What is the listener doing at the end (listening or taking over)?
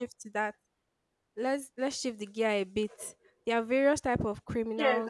taking over